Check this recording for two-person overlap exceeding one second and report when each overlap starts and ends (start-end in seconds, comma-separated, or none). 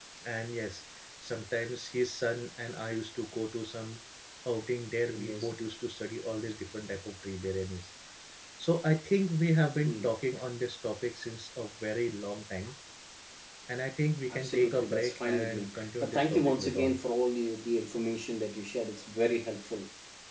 14.3-17.0